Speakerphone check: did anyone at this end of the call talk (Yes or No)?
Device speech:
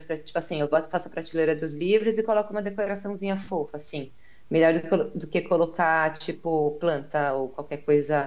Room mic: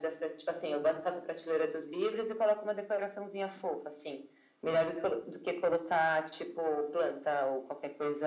No